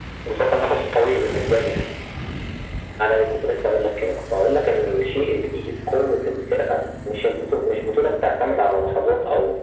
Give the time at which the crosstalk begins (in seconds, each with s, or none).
none